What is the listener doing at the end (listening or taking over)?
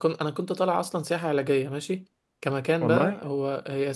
listening